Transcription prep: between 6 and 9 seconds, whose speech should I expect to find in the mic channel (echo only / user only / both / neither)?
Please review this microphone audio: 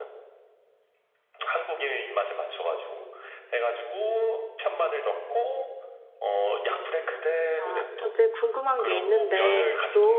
both